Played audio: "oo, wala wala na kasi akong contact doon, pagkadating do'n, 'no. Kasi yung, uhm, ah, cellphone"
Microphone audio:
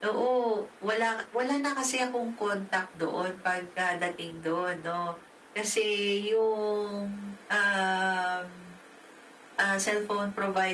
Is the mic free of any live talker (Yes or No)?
Yes